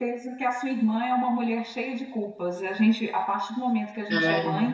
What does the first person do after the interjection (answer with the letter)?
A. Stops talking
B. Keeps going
B